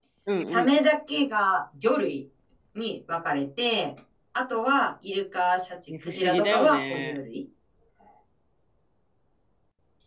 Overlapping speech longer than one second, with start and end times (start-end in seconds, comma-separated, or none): 5.9-7.2